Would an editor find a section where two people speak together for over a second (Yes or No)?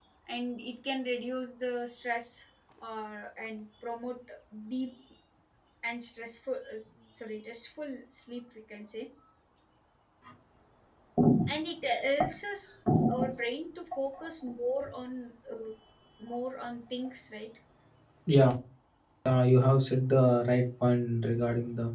No